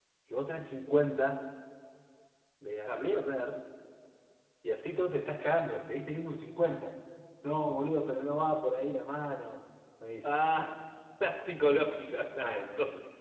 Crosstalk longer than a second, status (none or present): none